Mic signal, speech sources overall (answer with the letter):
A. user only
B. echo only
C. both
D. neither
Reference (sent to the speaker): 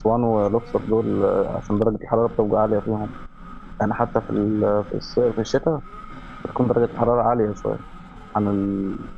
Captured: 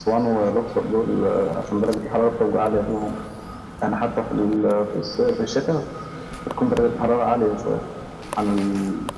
B